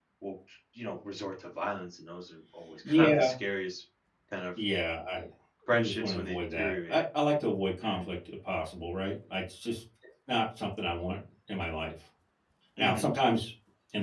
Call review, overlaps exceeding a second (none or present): present